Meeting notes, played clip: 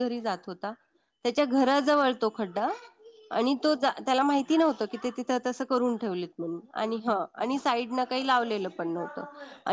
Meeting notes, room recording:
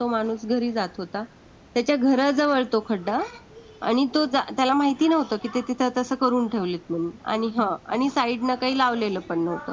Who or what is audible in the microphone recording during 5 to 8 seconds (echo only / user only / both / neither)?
echo only